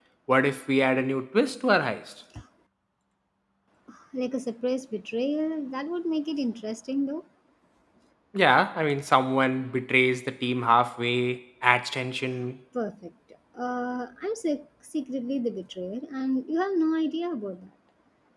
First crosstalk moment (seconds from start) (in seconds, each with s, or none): none